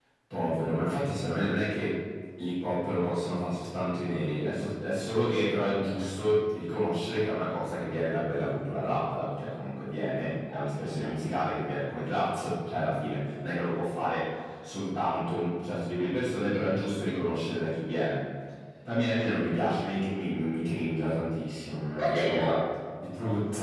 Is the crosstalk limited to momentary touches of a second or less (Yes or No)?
Yes